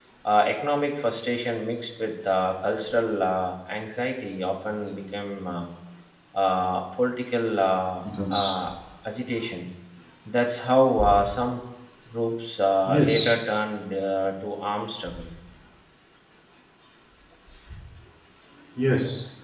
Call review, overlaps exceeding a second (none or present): none